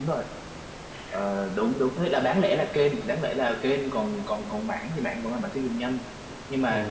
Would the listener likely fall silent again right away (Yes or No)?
Yes